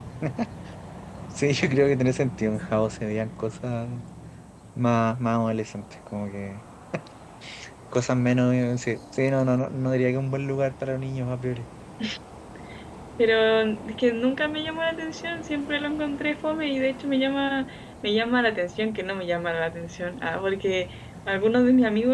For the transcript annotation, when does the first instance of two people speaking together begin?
none

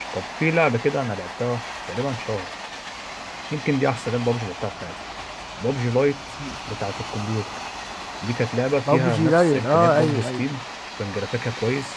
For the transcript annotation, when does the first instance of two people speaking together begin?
8.9 s

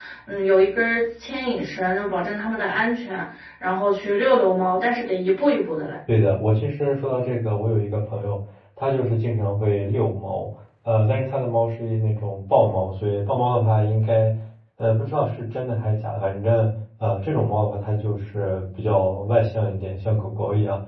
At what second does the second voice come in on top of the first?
none

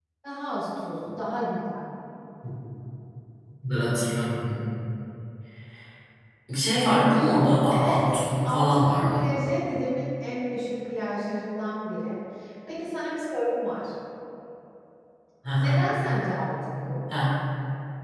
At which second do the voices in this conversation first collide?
7.7 s

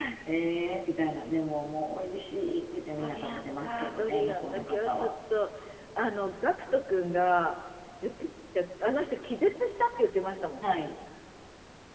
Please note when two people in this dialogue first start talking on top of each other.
3.0 s

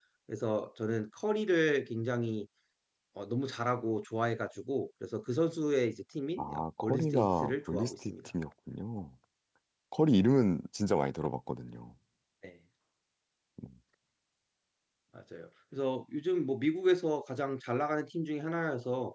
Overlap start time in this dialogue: 6.4 s

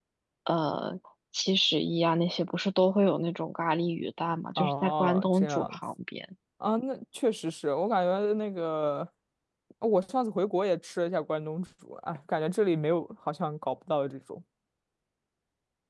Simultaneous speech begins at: 4.6 s

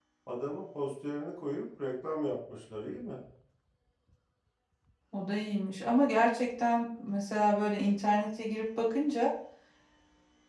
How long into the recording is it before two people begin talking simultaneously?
none

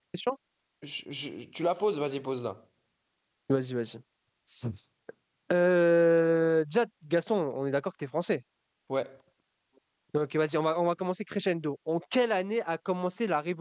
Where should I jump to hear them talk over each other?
none

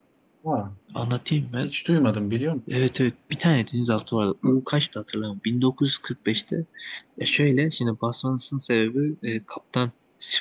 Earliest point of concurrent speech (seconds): none

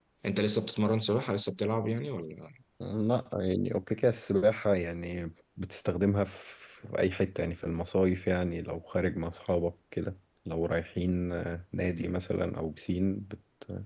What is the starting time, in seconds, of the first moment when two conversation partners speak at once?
none

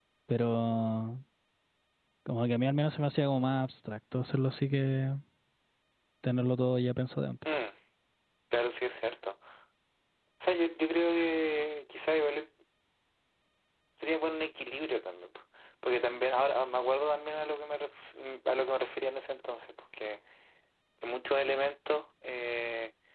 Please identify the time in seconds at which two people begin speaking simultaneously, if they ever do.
none

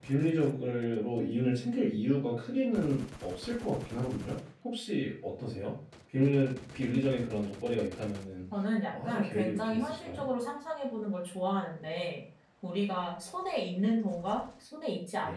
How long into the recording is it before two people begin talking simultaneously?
8.9 s

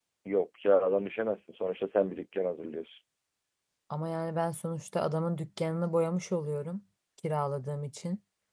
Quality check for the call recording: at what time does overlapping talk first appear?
none

